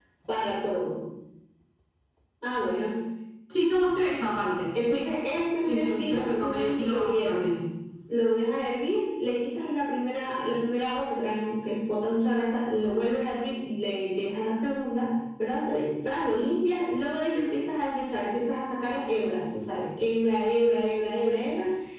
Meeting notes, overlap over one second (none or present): present